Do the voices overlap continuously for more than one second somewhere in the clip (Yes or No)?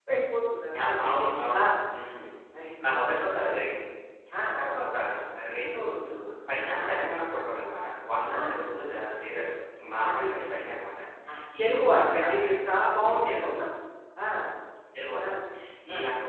Yes